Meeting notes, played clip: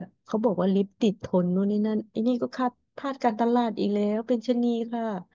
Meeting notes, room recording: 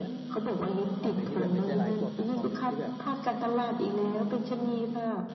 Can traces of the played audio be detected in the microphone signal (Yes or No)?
Yes